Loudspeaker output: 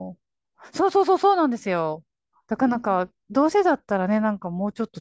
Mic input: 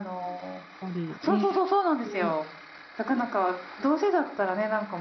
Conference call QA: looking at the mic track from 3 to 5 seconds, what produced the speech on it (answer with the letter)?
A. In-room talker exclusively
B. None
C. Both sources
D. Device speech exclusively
D